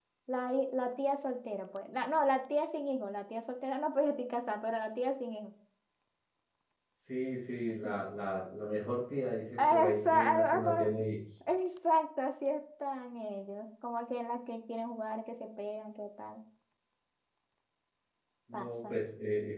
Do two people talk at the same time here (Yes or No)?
Yes